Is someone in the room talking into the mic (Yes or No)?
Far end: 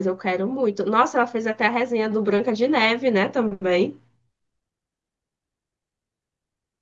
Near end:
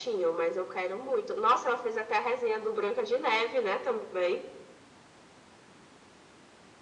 No